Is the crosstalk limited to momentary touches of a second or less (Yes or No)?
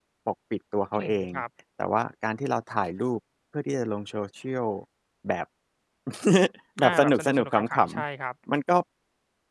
No